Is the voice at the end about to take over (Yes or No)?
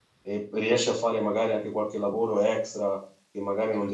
No